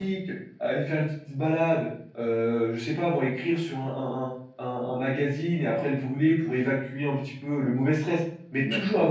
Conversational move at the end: listening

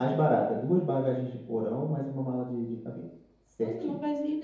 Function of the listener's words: taking over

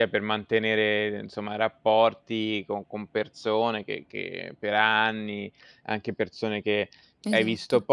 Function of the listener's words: listening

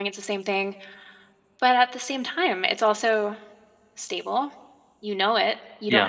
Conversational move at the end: listening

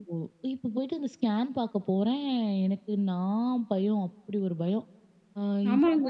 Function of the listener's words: taking over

